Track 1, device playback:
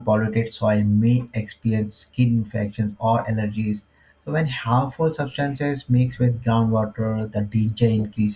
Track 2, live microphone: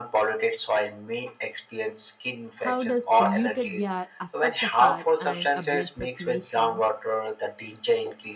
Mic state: both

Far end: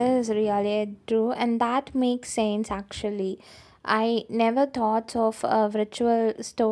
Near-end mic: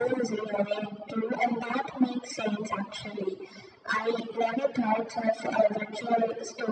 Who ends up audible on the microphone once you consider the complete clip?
echo only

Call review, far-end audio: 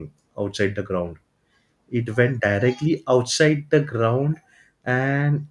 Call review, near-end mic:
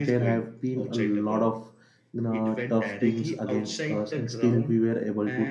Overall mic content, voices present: both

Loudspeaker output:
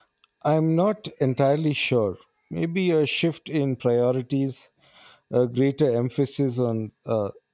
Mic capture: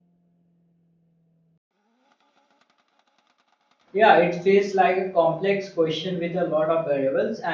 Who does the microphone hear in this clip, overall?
user only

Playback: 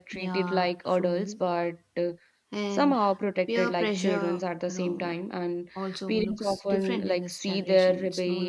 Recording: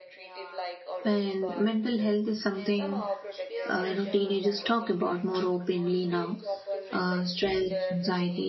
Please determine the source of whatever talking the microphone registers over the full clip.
both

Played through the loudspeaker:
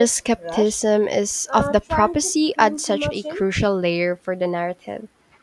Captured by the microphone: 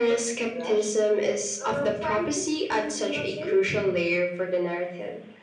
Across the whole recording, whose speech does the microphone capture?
echo only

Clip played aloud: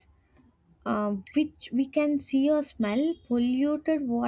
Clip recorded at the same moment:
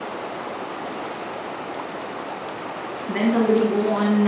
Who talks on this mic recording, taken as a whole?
user only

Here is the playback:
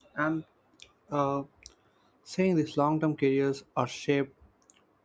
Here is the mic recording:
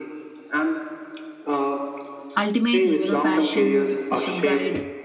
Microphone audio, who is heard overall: both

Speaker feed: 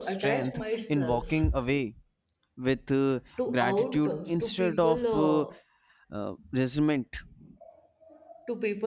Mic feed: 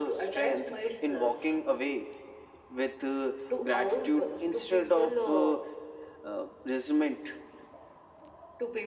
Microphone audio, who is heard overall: echo only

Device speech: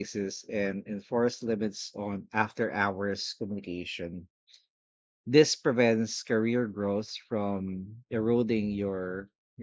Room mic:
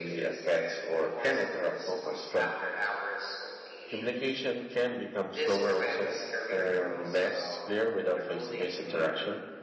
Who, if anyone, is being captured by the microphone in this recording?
both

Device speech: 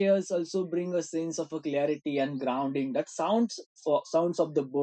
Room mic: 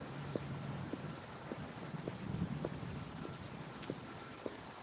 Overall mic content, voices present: neither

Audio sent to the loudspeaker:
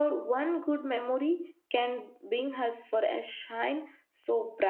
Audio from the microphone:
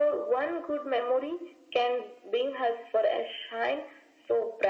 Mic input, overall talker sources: echo only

